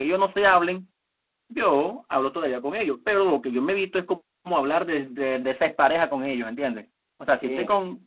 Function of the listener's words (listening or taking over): listening